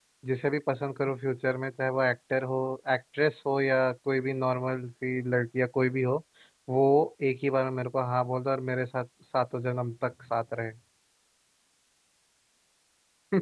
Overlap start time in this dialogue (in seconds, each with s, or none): none